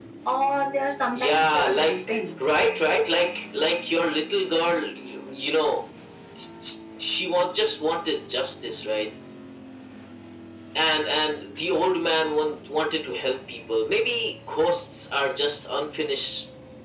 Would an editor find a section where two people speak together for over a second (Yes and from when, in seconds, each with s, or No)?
Yes, from 1.2 s